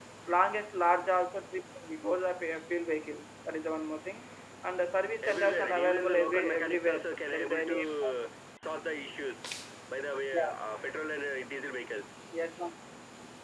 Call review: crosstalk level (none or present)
present